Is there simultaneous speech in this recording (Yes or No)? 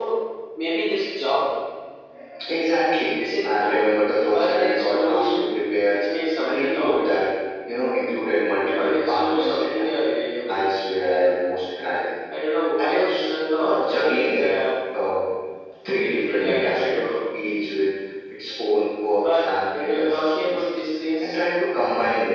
Yes